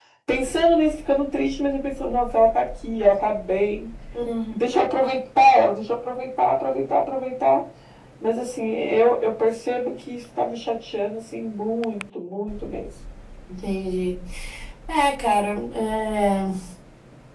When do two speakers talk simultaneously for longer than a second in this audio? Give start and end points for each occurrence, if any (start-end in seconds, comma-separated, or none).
none